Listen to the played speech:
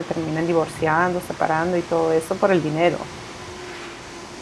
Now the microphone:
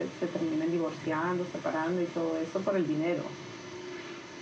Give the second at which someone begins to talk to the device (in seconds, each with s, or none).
none